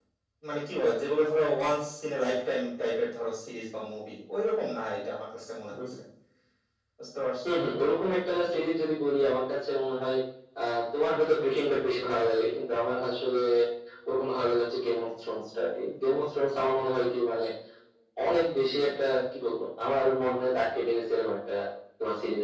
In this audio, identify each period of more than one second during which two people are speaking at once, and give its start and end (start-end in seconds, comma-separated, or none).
none